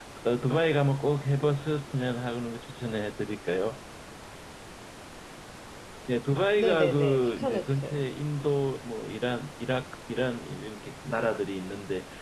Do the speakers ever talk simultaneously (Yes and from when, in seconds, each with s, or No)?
Yes, from 6.6 s